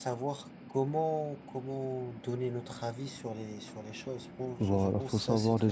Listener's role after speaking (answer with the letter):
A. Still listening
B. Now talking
B